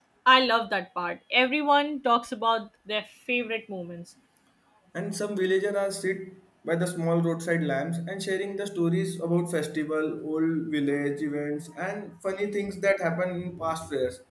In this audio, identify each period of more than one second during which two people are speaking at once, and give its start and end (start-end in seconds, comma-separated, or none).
none